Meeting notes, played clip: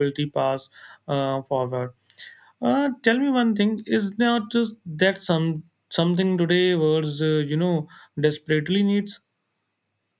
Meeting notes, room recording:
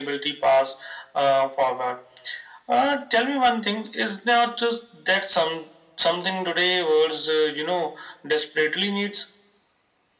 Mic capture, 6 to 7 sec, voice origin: echo only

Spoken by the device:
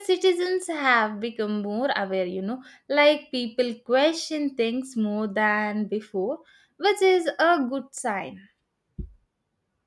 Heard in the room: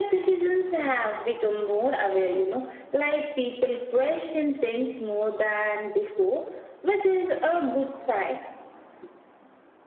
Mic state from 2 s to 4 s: echo only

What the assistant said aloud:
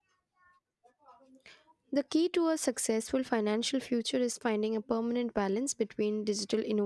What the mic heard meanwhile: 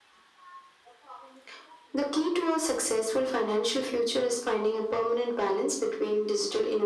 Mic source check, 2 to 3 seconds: echo only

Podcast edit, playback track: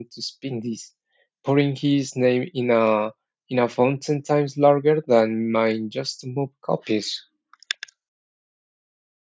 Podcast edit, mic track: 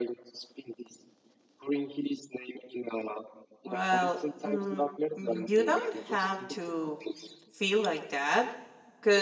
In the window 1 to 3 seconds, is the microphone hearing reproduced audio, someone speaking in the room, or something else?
echo only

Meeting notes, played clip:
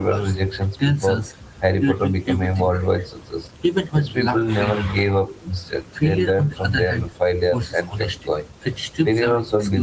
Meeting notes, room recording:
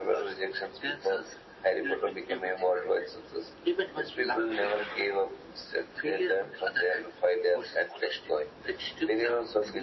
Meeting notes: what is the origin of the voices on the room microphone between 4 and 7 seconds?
echo only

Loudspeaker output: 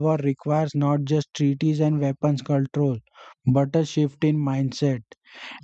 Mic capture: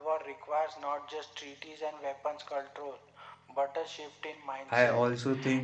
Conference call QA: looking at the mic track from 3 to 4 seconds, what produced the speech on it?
echo only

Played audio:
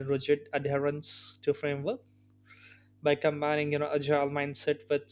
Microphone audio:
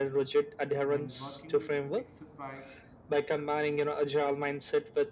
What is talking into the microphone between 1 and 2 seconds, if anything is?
both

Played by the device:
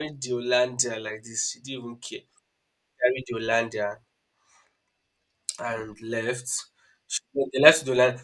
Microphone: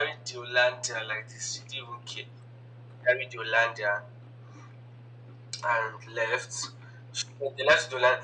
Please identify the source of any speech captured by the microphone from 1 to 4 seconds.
echo only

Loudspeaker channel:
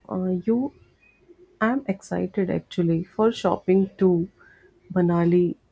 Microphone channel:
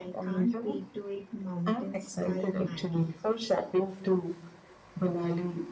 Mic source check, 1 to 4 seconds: both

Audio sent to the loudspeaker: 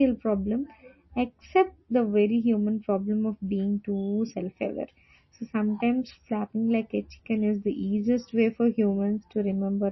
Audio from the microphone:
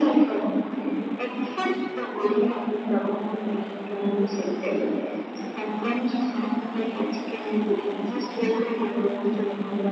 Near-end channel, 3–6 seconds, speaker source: echo only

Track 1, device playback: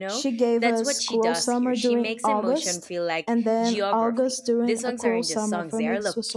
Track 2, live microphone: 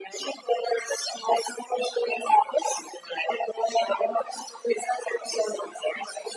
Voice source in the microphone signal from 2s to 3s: echo only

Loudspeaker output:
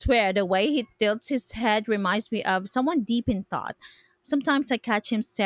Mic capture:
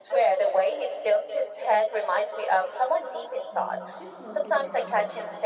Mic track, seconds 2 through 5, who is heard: both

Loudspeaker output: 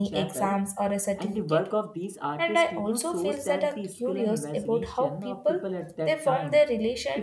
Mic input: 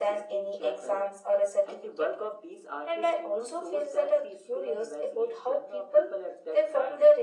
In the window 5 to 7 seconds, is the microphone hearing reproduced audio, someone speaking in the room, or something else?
echo only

